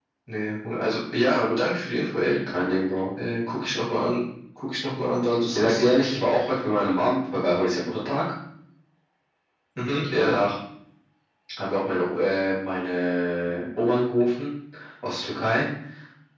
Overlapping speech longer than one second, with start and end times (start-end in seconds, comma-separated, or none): none